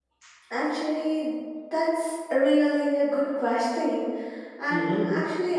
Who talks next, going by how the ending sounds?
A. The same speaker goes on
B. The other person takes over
A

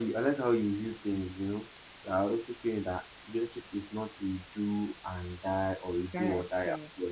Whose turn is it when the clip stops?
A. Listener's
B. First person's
B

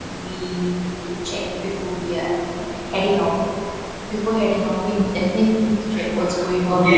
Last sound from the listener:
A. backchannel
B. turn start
B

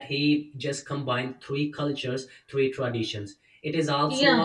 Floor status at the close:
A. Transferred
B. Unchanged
A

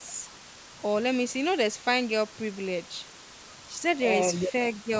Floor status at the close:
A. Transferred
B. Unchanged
B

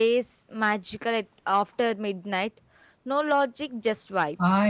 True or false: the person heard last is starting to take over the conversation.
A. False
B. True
B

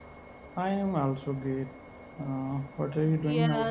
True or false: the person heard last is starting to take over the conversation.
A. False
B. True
B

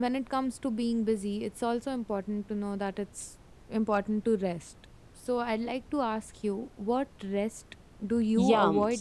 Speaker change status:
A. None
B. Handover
B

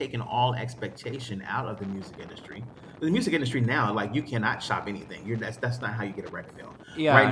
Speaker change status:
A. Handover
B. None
B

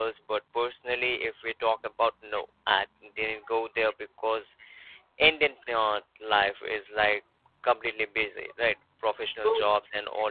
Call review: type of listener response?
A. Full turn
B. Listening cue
B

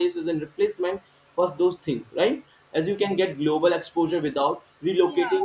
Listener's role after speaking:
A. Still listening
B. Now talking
A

